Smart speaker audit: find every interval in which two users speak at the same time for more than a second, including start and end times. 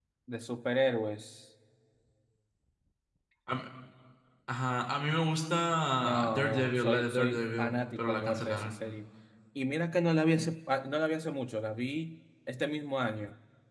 6.0-8.7

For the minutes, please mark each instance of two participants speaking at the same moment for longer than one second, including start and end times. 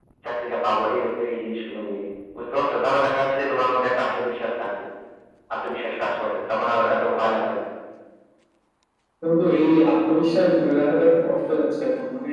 none

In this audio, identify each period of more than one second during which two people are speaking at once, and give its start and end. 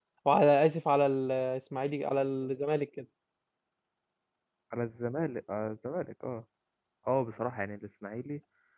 none

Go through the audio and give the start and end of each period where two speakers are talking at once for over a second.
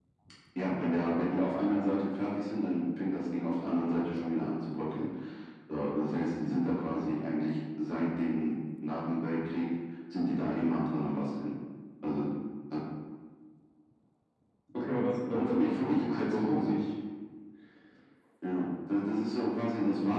15.3-16.8

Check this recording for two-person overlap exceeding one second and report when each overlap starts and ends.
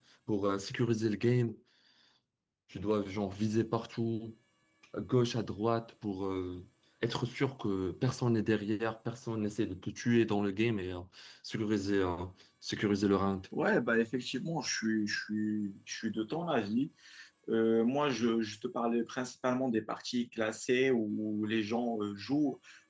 none

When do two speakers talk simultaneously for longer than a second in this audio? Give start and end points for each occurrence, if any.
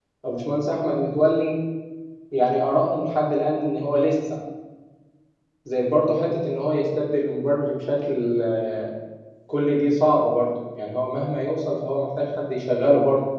none

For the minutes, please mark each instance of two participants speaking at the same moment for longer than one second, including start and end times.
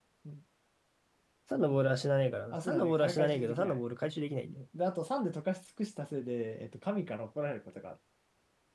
2.5-3.8

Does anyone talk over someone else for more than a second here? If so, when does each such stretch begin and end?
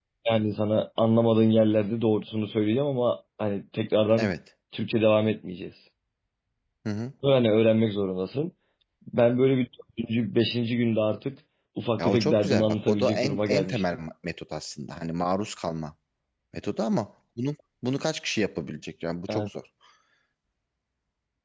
12.0-13.8

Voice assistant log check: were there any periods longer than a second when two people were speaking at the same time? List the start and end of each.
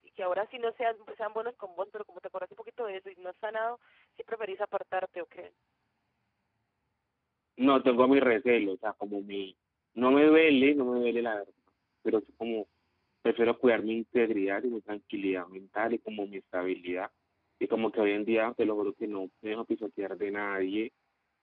none

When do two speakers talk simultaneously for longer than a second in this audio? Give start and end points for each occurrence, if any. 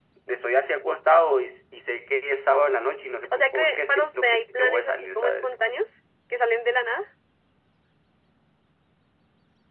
3.3-5.5

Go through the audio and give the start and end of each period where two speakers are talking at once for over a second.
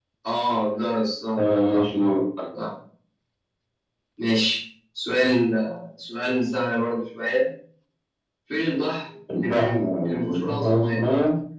9.4-11.0

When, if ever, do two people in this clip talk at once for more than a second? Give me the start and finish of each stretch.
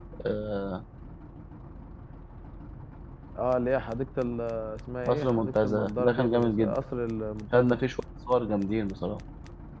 5.0-6.8

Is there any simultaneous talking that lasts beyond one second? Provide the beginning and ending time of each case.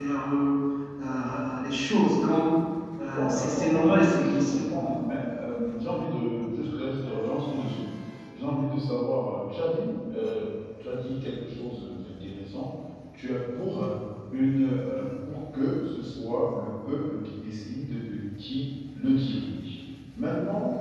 3.1-5.0

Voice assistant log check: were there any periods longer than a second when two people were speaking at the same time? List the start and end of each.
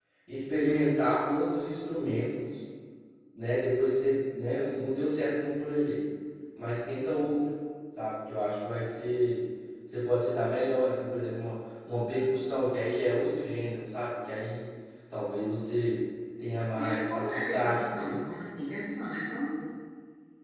16.8-18.2

